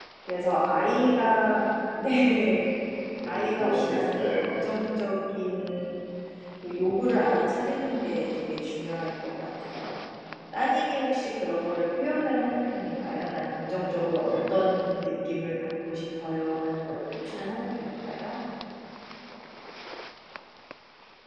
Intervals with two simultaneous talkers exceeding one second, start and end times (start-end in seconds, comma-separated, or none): 3.2-4.6